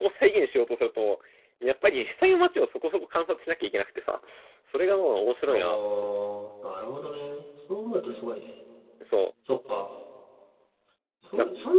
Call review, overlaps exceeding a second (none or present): none